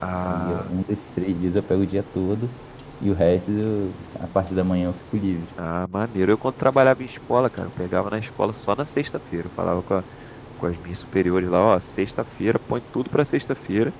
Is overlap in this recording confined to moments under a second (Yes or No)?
Yes